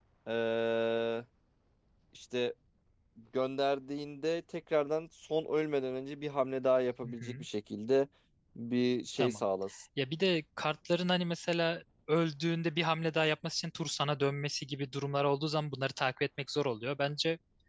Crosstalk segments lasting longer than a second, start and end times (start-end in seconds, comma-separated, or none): none